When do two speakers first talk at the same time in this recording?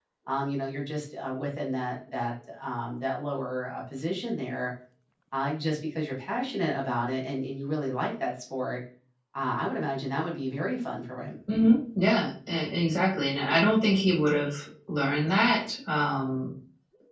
none

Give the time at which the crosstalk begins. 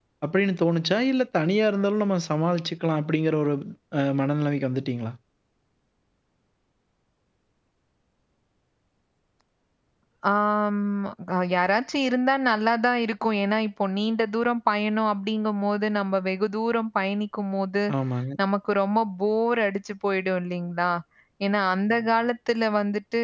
none

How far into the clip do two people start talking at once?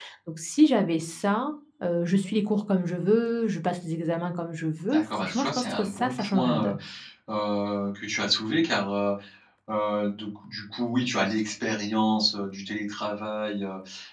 4.9 s

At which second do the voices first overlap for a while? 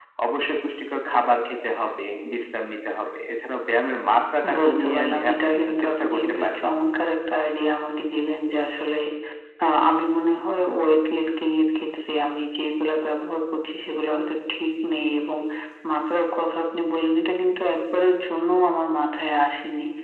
4.4 s

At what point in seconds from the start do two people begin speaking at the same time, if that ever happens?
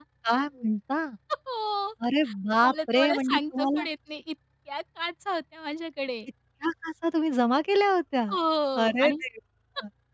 2.6 s

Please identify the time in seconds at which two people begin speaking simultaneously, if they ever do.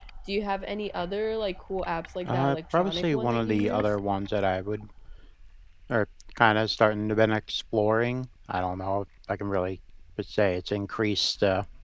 2.2 s

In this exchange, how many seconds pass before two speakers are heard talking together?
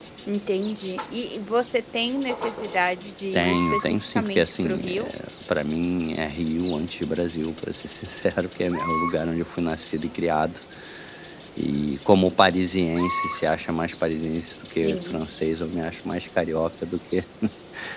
3.3 s

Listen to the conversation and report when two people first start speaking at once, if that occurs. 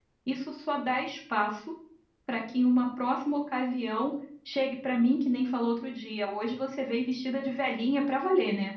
none

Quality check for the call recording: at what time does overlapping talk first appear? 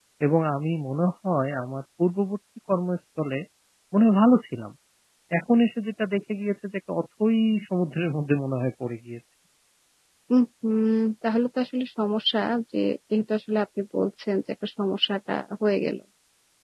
none

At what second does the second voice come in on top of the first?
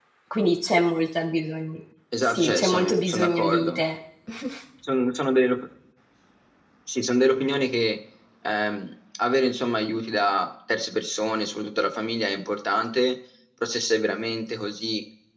2.2 s

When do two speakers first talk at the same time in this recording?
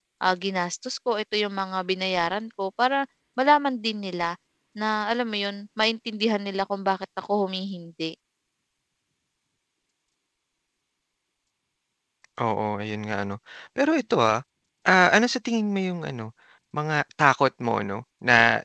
none

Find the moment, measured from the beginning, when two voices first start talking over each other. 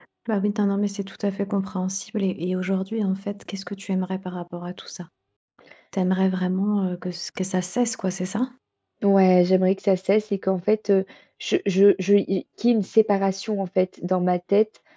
none

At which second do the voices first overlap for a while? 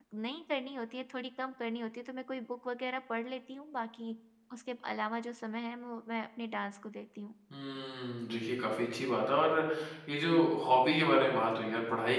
none

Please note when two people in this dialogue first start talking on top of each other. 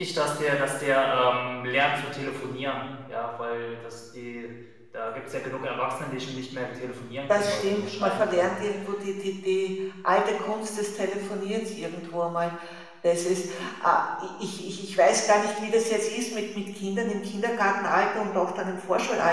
7.3 s

